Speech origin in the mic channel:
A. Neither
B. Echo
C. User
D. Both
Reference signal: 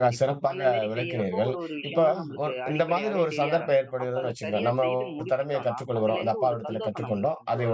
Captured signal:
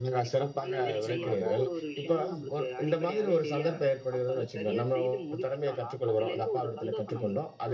D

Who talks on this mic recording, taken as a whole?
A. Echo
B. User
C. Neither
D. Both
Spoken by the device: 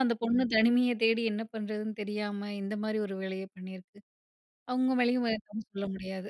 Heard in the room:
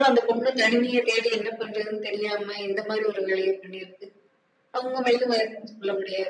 A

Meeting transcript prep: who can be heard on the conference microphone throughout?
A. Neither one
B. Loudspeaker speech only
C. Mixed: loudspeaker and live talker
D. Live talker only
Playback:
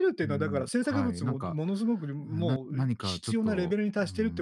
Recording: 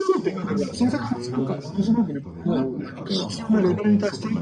C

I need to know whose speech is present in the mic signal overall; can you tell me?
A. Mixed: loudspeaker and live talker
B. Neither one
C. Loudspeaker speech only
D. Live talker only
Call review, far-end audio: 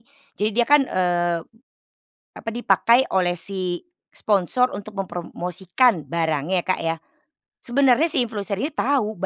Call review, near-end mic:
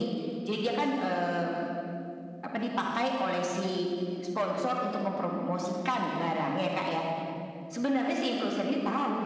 C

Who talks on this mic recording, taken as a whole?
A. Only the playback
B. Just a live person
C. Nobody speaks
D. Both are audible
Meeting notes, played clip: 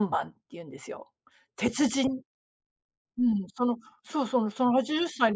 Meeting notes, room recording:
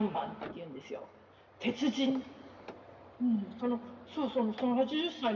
A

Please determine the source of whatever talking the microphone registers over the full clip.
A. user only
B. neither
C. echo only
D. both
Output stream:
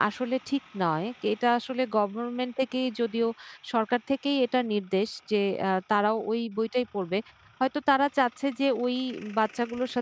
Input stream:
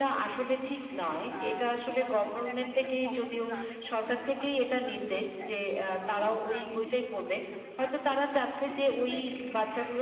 D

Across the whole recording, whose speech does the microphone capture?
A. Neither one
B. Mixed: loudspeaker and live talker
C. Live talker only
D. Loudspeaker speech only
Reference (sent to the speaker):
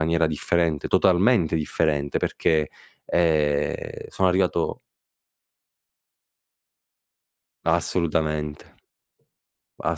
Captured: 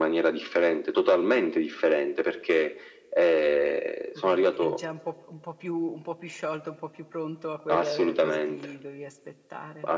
B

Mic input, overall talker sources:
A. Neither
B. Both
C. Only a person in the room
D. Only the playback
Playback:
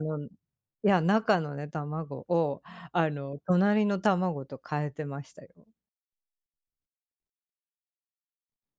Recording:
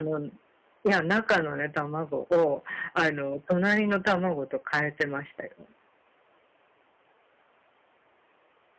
D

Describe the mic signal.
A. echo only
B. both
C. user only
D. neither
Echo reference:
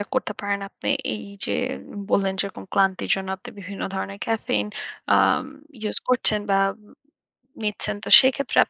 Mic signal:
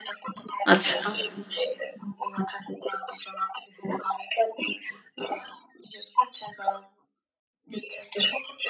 B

